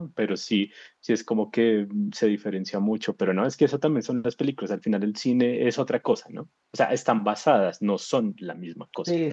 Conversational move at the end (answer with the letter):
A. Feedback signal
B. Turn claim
B